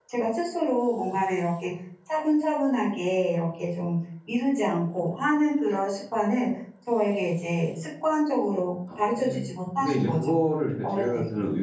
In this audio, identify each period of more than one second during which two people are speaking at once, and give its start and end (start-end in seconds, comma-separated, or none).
9.0-10.3